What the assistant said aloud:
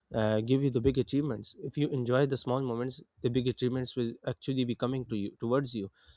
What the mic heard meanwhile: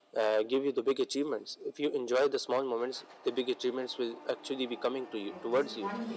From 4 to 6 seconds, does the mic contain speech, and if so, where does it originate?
both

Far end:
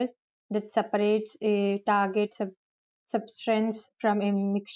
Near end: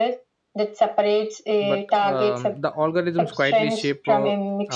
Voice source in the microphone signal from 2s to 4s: both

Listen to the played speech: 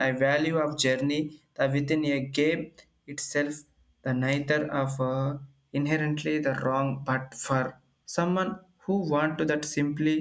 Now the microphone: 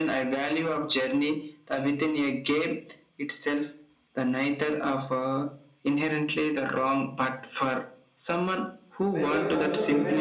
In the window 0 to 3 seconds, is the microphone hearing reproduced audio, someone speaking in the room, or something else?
echo only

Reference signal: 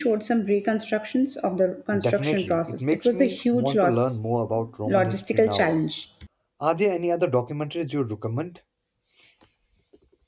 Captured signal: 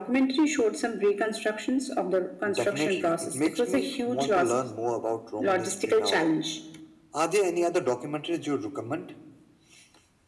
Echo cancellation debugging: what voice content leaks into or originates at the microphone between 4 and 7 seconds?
echo only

